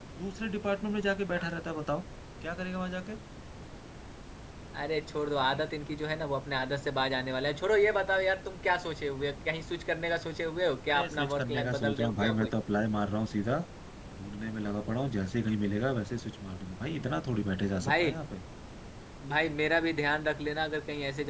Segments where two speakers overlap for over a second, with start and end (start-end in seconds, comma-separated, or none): 10.9-12.5